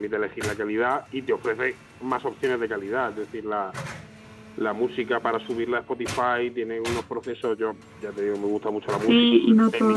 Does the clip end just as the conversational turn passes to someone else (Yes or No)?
Yes